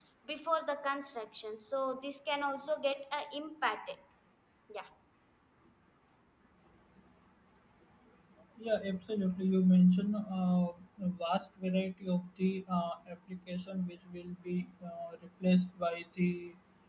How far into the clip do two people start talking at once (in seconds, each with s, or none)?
none